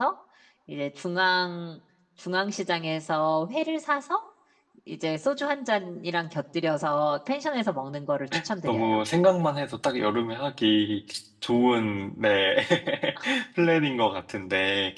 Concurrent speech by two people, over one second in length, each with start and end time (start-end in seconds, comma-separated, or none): none